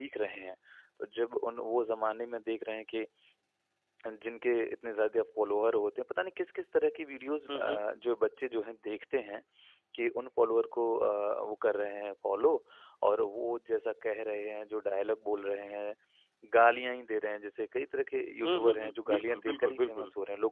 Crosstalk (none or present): present